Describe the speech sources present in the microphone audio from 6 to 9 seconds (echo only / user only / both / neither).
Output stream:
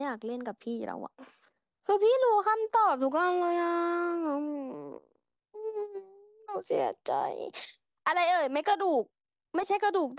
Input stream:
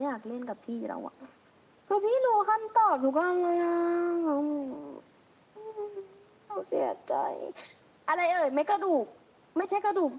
echo only